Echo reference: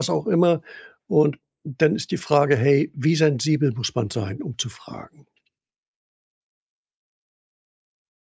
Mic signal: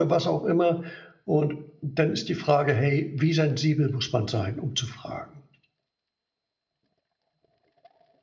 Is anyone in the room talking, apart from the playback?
No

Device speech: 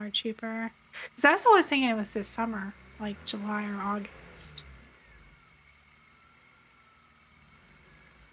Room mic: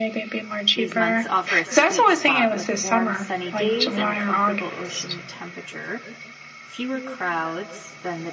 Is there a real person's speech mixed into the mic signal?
Yes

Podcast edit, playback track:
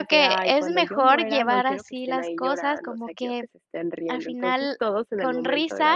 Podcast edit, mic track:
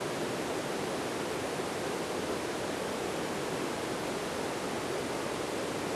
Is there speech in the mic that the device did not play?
No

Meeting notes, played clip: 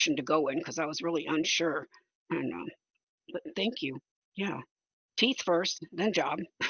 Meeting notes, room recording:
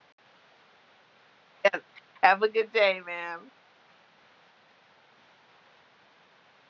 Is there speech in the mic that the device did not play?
Yes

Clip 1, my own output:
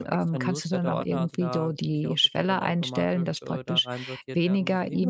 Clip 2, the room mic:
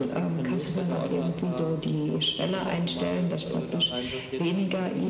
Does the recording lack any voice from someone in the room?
Yes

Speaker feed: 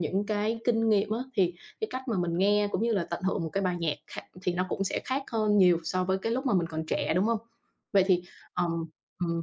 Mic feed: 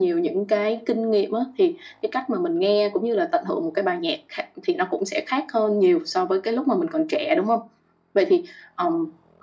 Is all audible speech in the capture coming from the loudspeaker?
Yes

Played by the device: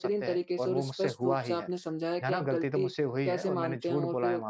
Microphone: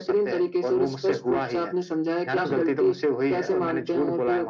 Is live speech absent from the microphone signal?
No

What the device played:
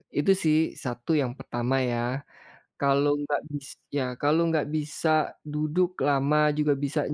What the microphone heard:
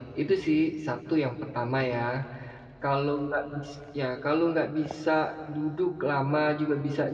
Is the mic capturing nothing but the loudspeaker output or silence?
Yes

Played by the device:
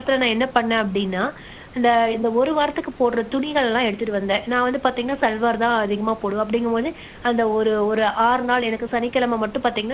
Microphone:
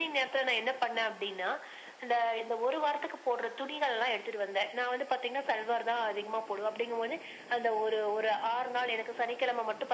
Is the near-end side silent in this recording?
Yes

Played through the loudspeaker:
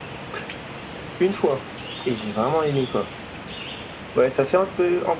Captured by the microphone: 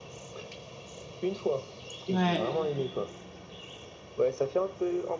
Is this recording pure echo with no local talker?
No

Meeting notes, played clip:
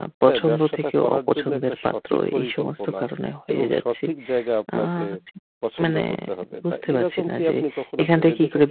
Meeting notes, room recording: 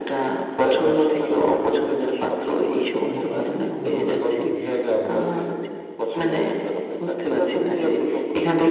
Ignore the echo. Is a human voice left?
Yes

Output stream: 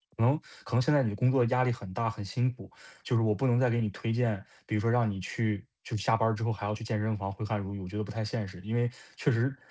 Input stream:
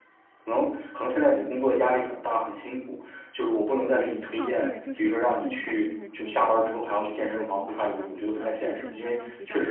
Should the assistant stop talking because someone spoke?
Yes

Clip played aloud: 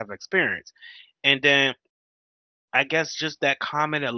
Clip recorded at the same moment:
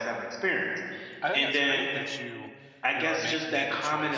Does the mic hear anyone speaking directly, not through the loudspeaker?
Yes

